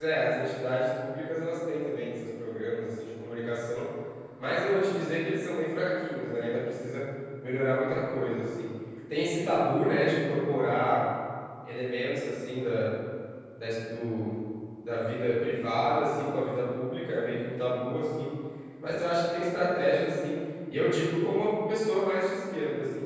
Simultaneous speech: No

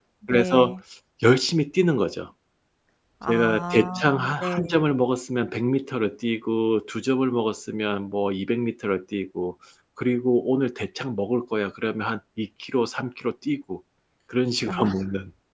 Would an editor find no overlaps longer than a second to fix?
No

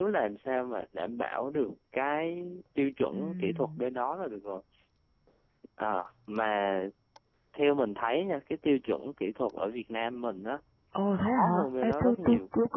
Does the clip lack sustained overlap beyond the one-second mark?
No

